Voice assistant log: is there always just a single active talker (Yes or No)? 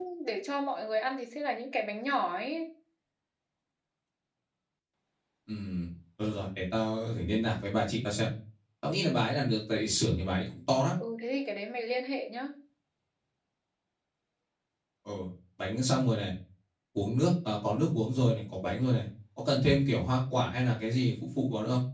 Yes